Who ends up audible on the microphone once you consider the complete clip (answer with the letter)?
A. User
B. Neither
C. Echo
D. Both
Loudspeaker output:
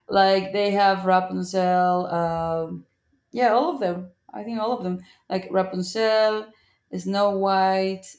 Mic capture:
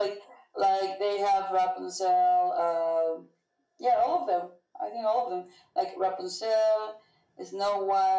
C